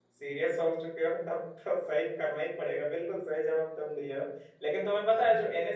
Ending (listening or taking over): listening